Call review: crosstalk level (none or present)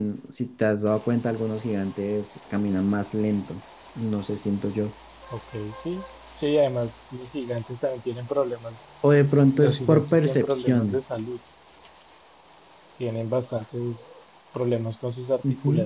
present